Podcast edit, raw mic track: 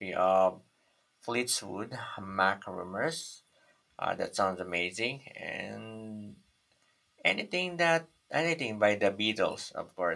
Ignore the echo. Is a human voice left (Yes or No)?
Yes